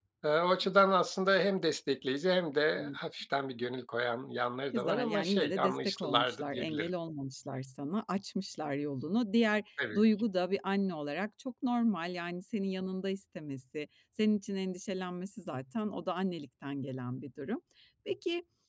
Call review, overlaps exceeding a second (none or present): present